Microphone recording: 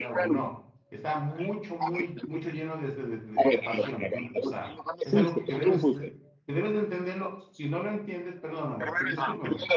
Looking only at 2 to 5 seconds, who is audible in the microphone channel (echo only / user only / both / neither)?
both